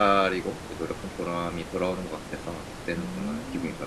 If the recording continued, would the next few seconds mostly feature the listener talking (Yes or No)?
Yes